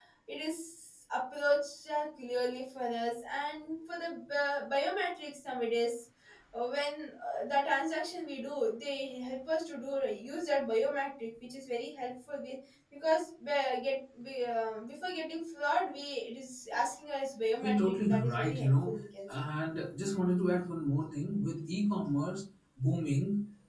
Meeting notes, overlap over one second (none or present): present